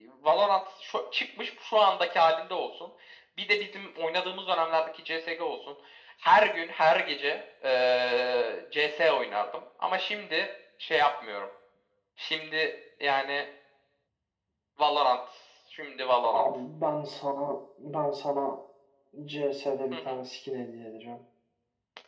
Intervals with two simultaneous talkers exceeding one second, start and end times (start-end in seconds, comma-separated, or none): none